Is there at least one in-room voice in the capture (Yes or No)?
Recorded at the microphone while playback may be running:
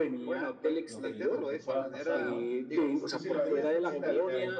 Yes